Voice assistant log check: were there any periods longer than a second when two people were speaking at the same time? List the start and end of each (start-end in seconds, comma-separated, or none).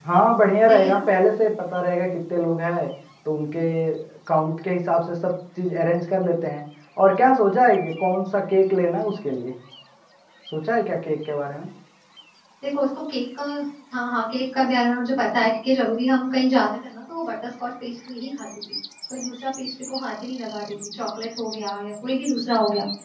none